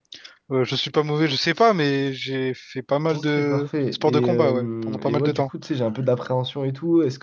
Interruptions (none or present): present